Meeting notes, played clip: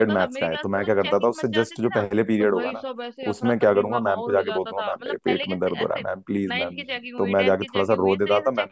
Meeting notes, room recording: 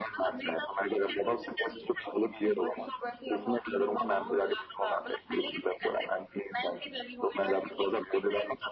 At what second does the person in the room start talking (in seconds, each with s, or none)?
none